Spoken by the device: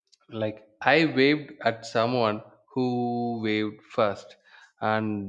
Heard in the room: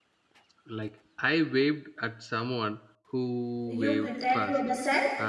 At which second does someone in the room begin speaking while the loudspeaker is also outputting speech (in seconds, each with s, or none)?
3.6 s